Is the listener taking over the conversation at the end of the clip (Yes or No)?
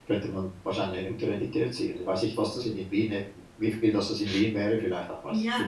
Yes